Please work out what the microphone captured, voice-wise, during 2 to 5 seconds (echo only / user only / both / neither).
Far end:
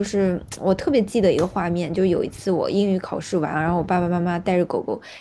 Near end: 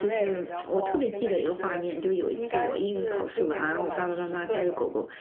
both